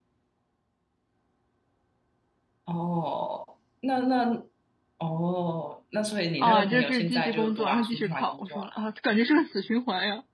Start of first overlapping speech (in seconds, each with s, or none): 6.4 s